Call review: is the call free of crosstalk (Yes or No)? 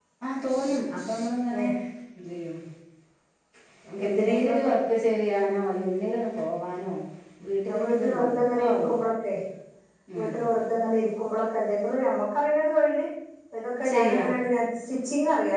No